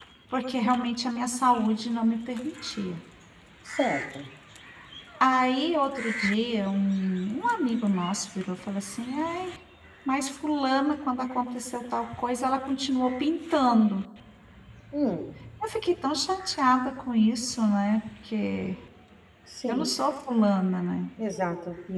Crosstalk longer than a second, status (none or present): none